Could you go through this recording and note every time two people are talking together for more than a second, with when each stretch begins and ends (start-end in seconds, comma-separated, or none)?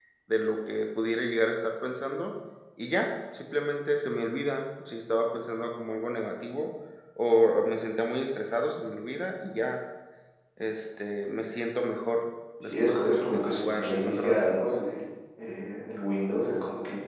12.6-14.6